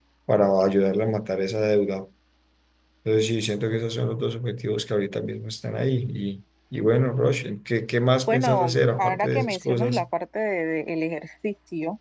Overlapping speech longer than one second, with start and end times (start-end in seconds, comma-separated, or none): 8.3-10.0